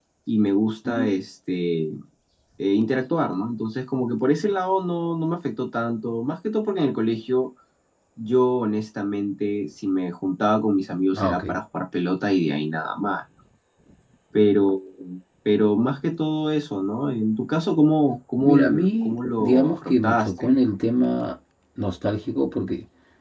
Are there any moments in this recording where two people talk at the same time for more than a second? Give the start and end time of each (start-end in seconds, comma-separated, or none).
18.4-20.6